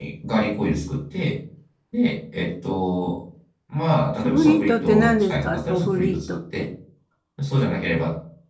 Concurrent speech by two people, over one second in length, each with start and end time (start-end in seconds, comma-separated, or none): 4.2-6.7